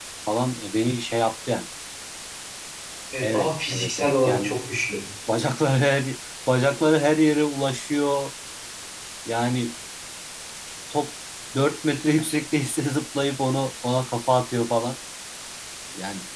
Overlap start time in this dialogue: 3 s

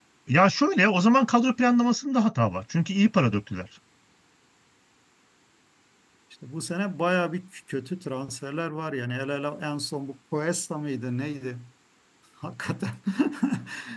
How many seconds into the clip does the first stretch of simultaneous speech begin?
none

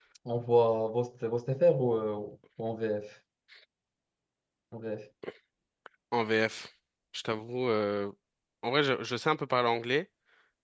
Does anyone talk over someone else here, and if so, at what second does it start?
none

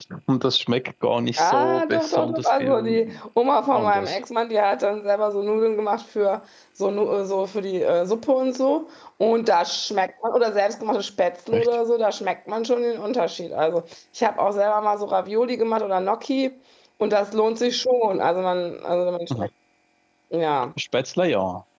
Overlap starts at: 1 s

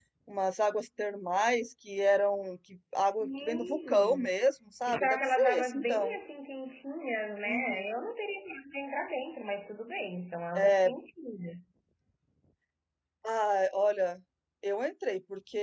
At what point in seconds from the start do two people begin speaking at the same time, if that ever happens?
3 s

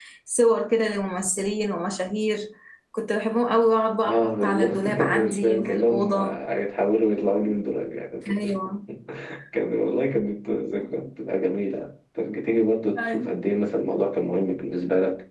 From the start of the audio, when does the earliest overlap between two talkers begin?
4 s

